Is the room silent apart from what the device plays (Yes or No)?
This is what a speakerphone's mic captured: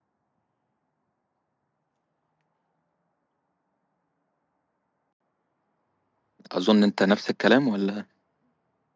No